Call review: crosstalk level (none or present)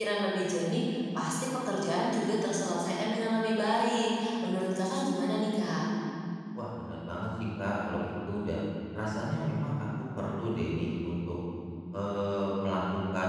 none